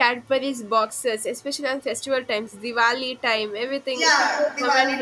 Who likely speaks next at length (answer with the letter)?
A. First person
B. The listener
B